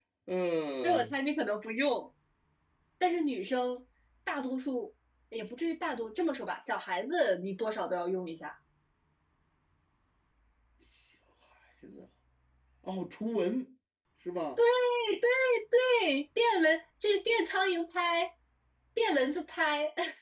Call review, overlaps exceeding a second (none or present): none